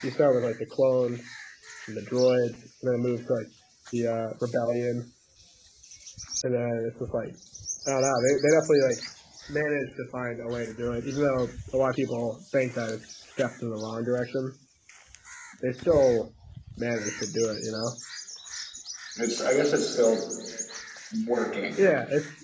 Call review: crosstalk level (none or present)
none